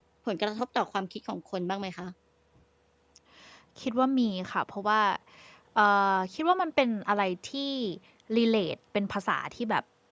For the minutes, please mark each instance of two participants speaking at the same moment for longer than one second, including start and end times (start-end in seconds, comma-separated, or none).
none